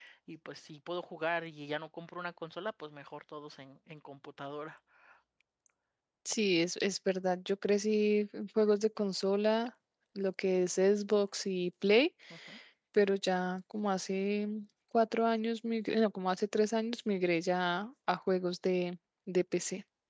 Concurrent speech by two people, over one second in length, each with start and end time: none

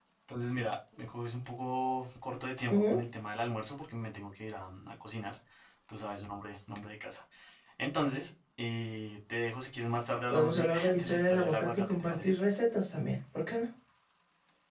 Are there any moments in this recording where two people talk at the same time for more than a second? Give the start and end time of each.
10.3-12.3

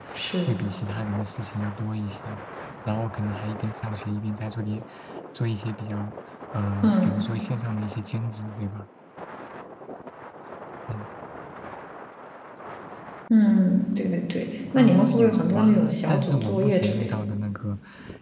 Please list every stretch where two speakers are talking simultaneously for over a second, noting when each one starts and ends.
14.8-17.2

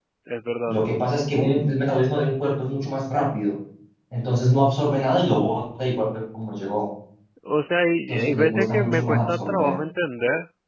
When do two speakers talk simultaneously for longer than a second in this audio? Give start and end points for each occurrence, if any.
8.1-9.7

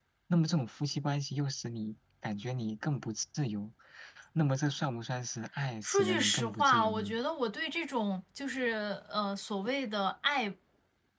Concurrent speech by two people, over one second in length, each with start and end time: 5.8-7.2

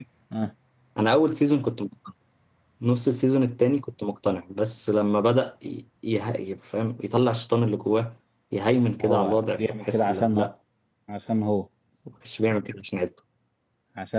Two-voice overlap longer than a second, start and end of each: 9.0-10.5

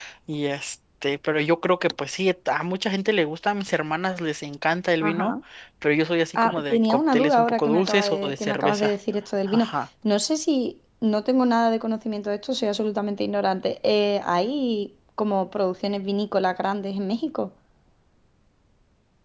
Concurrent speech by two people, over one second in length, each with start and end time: 6.3-8.9

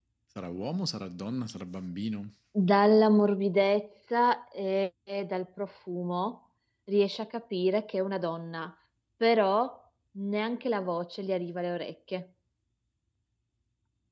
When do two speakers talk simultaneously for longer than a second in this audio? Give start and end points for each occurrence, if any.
none

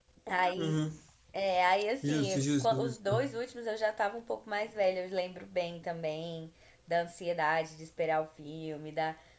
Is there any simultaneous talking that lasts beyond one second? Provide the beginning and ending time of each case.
2.1-3.3

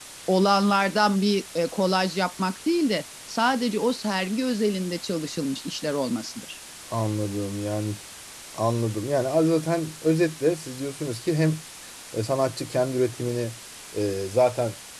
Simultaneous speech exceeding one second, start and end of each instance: none

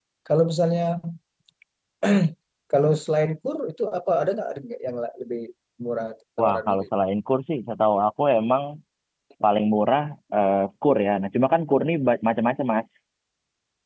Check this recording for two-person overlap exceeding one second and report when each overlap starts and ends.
none

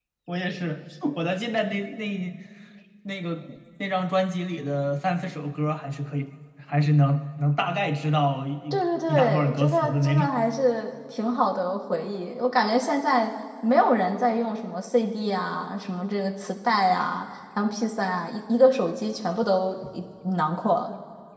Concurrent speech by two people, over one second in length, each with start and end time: 8.7-10.4

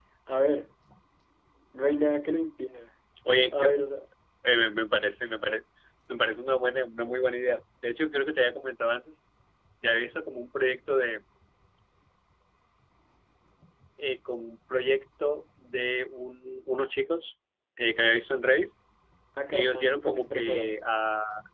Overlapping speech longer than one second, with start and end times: 19.5-20.7

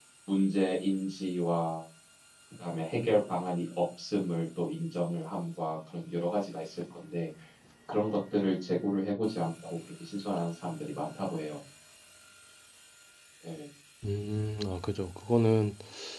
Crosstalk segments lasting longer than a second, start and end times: none

